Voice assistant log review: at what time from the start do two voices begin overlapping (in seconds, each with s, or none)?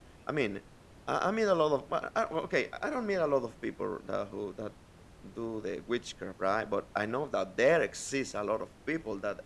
none